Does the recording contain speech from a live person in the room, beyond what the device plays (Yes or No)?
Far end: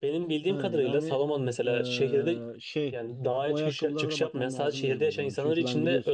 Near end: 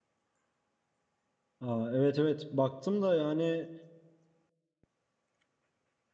Yes